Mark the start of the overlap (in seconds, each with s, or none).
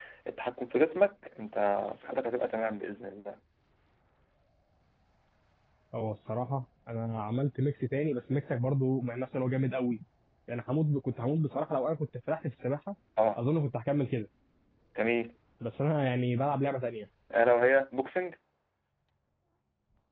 none